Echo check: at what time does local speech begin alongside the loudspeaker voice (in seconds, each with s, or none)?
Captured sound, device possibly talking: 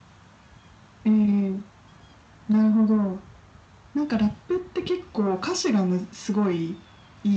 none